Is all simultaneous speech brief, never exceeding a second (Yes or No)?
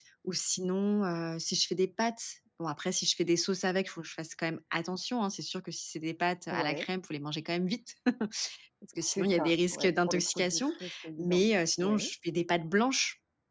No